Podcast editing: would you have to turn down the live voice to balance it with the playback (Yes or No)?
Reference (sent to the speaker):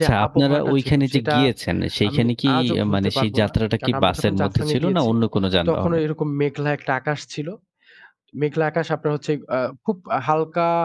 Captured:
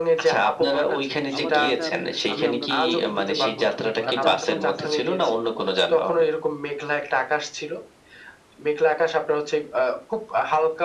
No